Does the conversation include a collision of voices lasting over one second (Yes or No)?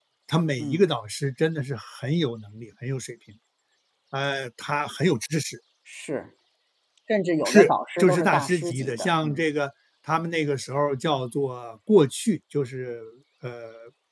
Yes